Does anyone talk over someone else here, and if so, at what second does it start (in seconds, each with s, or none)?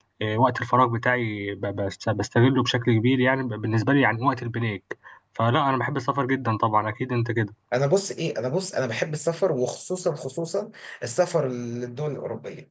none